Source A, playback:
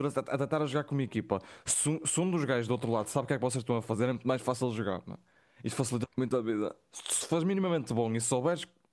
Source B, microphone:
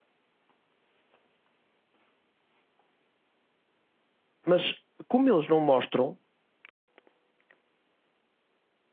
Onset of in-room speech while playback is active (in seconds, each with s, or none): 4.5 s